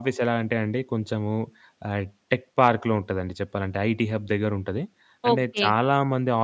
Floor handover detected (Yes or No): No